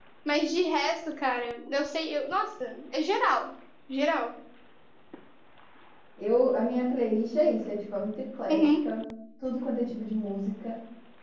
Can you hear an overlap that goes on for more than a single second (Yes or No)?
No